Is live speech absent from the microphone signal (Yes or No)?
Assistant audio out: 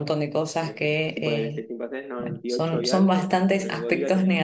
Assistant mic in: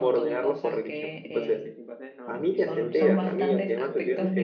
No